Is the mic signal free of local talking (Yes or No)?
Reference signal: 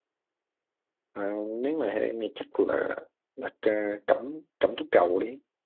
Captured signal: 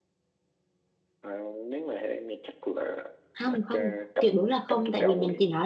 No